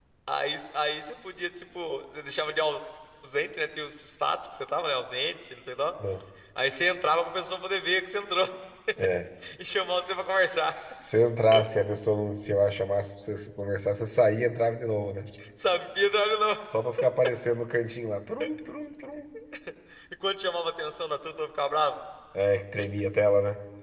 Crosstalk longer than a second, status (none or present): none